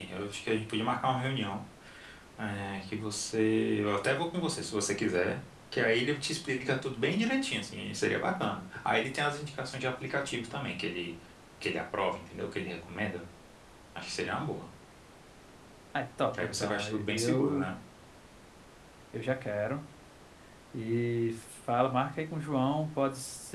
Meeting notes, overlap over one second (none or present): present